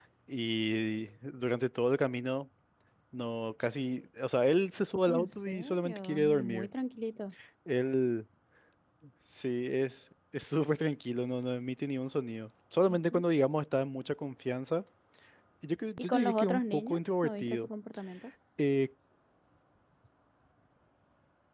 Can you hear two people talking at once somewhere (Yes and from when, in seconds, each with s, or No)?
Yes, from 5.1 s